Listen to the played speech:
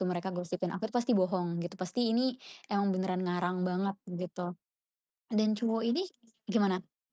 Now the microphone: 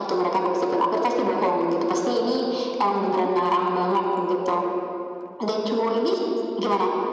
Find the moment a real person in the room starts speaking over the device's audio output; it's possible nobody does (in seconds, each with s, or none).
3.0 s